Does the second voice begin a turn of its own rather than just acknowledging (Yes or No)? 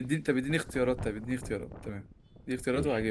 Yes